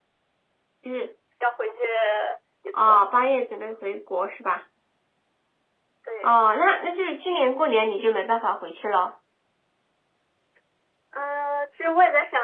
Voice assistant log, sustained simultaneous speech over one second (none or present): none